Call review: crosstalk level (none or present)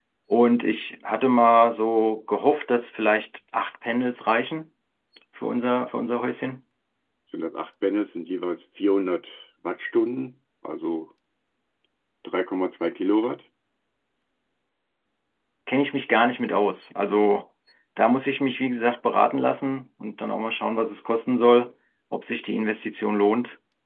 none